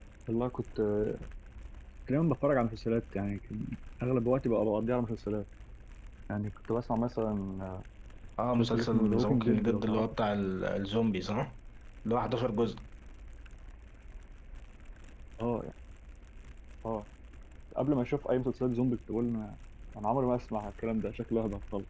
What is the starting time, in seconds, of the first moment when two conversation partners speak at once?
9 s

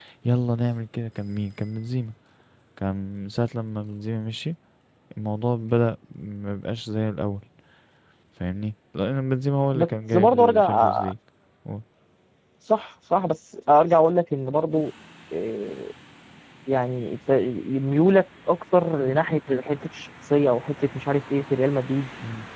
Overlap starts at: 10 s

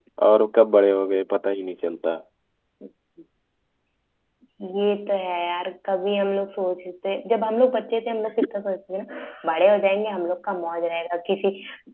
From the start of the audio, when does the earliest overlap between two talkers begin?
none

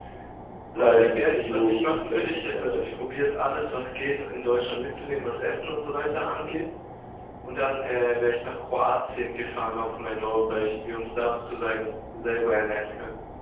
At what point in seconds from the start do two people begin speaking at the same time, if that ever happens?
1 s

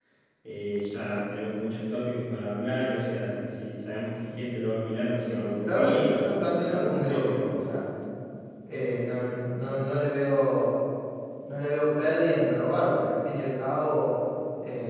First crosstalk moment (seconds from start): 5 s

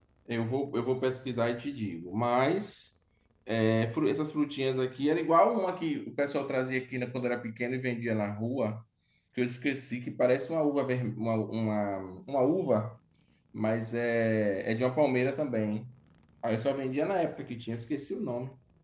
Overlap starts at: none

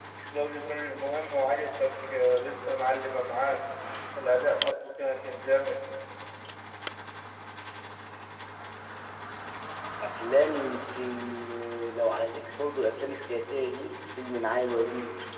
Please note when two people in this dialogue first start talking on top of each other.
none

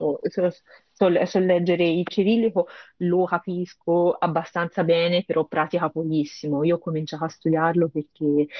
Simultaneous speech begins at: none

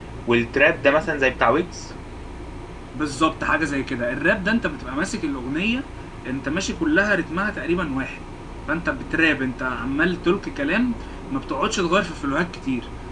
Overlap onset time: none

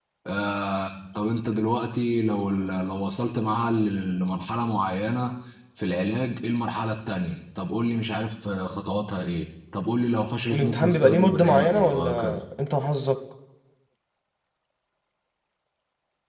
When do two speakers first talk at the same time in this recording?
10 s

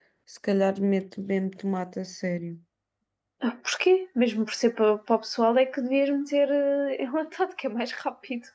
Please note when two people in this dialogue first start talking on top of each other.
none

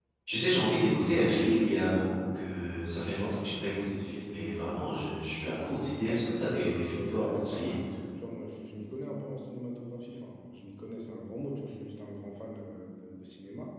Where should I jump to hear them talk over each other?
6 s

